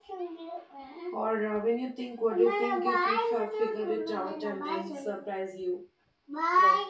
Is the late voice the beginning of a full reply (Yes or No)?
Yes